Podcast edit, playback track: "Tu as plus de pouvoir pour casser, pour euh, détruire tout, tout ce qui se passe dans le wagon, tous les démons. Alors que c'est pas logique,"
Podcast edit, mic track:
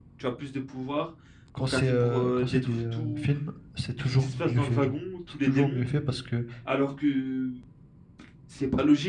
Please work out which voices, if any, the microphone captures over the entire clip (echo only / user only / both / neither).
both